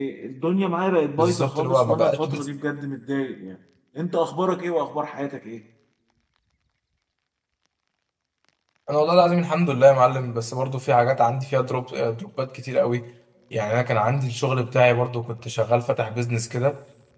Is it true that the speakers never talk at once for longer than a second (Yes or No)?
No